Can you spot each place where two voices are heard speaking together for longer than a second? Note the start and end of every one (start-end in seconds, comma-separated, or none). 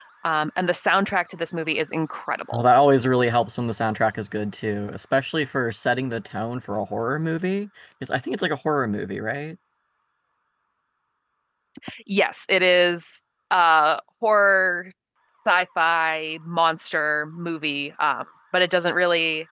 none